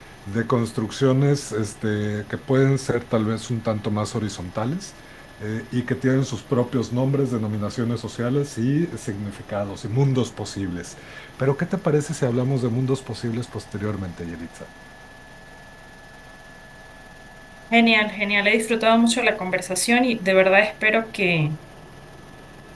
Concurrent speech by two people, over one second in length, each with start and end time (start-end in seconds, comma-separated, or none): none